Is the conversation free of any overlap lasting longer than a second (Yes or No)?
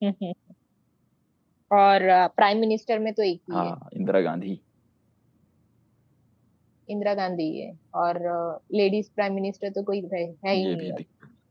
Yes